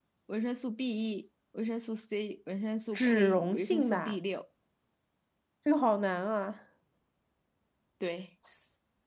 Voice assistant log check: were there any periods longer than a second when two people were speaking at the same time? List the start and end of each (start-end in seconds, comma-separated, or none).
2.9-4.2